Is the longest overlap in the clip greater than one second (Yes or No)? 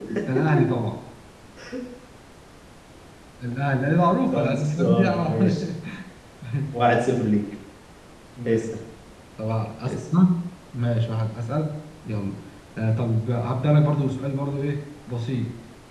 Yes